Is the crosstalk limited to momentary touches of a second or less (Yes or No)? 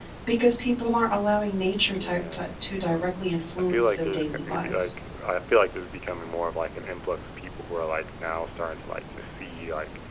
No